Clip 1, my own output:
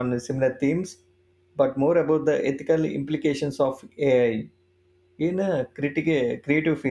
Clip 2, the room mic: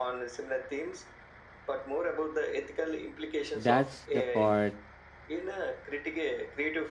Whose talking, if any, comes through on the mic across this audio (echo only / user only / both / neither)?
both